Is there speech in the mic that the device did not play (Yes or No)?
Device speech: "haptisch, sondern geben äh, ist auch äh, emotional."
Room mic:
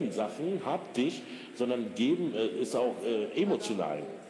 Yes